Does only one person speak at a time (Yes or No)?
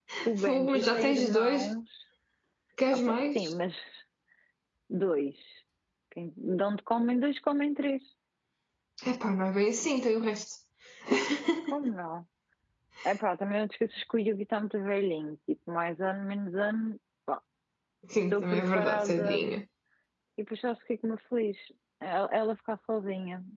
No